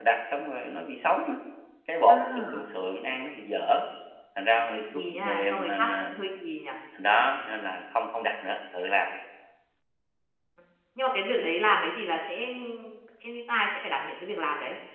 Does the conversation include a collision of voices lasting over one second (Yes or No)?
Yes